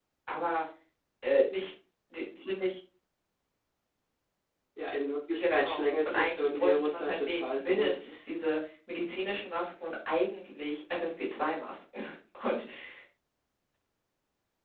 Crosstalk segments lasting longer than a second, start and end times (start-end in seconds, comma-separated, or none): 5.3-8.0